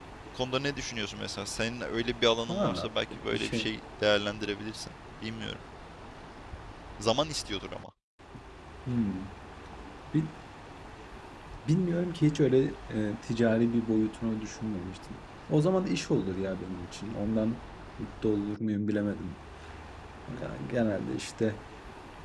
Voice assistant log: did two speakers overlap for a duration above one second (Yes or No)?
Yes